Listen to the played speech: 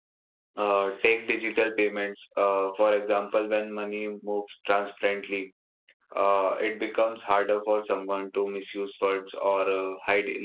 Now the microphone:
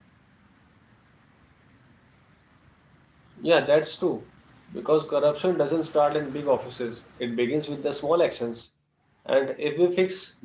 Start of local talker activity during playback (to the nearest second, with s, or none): 3 s